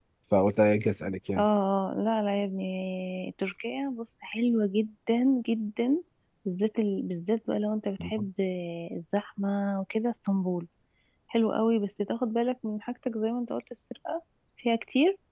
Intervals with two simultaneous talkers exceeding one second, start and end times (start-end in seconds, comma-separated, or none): none